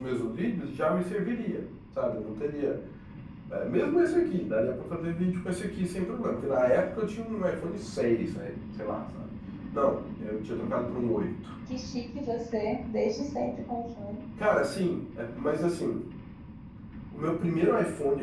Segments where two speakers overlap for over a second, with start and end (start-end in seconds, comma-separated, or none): none